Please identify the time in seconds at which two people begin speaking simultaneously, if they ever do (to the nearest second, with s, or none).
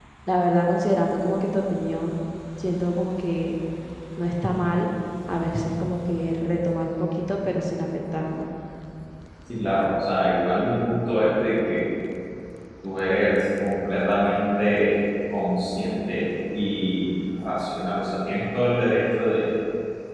none